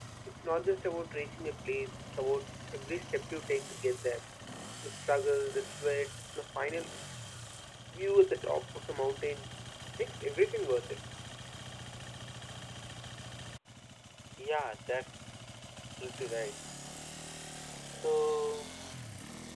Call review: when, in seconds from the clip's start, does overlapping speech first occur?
none

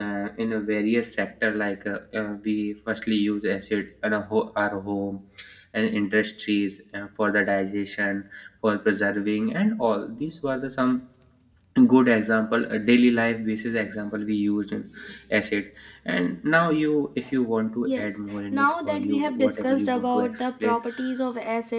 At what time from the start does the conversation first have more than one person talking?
17.9 s

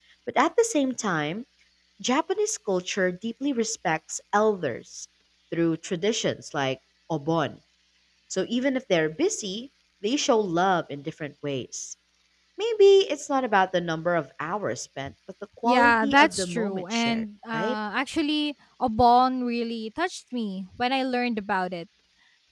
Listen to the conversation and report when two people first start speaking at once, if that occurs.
15.6 s

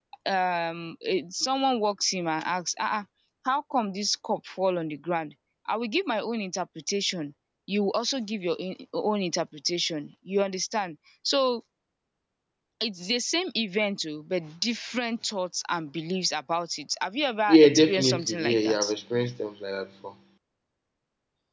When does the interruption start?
17.5 s

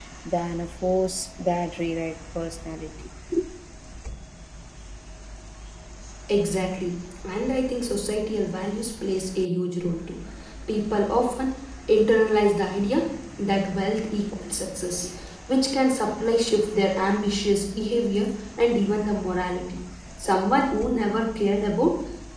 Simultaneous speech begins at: none

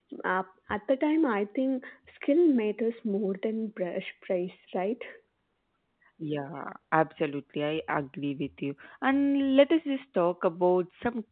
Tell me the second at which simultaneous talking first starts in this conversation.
none

